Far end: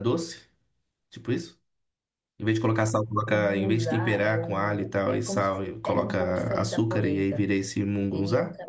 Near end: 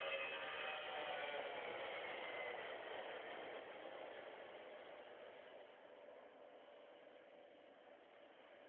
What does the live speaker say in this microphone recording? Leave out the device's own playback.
none

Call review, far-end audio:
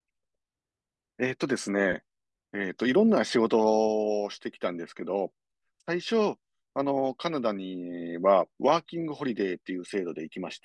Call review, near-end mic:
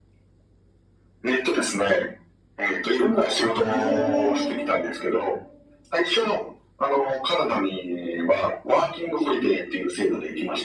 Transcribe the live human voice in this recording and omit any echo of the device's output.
ねえ

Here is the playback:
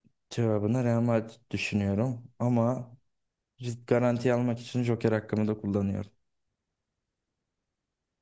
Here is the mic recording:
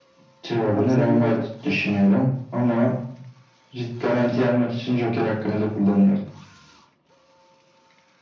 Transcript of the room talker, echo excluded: Cevap seviye olacaktı.

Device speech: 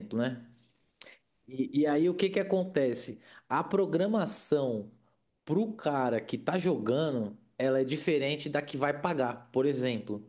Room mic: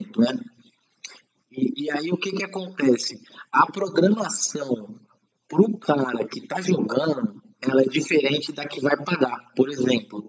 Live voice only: none

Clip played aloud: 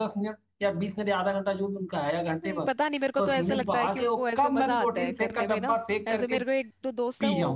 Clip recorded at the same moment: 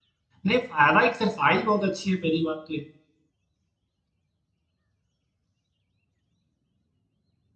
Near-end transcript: नहीं फायदा एक्सरसाइज बहुत अच्छी है पहली बात तो ये

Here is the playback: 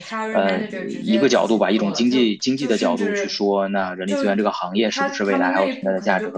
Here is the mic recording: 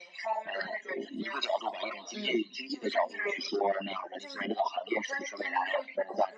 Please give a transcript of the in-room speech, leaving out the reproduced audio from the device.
嗯

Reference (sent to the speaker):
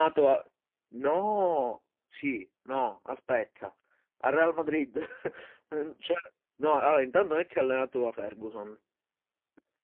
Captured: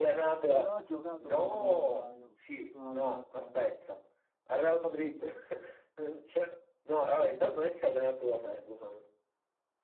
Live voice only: però ha giocato con Ron Nazairo, Ronaldo Nazairo.

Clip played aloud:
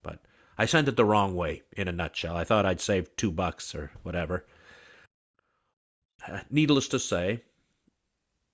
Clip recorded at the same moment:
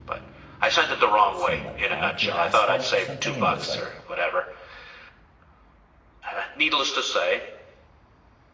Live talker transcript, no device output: some like concrete asphalt or something and it was like

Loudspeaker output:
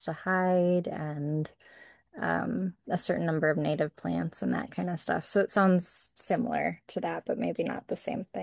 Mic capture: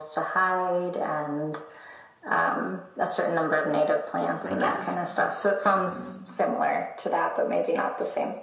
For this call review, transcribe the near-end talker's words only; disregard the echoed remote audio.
So that's my guess. I don't know.

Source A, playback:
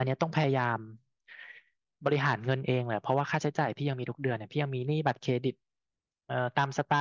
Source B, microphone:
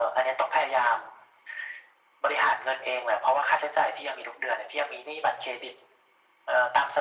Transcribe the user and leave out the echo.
none

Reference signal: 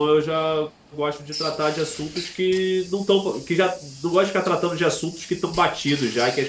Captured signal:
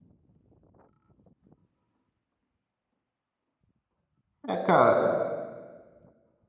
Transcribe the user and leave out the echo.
É, cara,

